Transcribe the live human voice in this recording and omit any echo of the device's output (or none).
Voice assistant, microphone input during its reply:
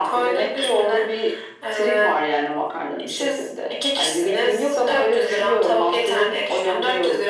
none